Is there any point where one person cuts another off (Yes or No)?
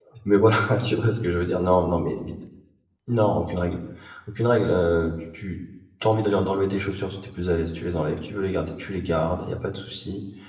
No